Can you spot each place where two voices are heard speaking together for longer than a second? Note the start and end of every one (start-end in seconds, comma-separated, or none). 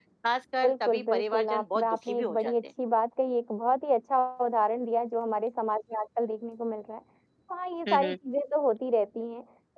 0.6-2.6